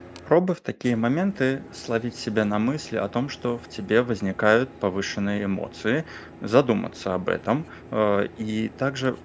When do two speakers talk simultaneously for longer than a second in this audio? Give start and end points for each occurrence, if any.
none

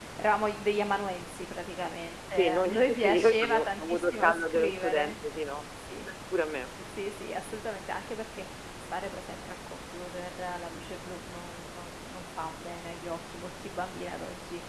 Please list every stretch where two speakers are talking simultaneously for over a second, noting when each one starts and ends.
2.3-5.2

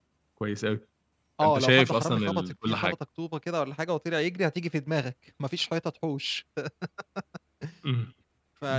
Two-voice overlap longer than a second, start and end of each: 1.4-2.9

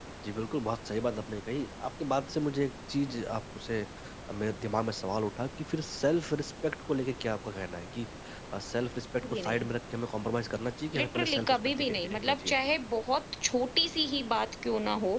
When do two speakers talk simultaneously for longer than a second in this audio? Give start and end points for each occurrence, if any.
11.0-12.8

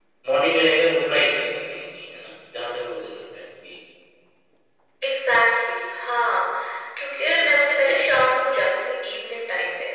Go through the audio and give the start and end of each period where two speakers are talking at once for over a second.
none

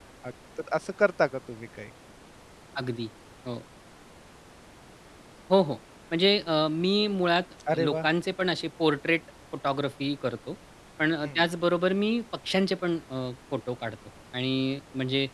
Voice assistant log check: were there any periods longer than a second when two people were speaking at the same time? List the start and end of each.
none

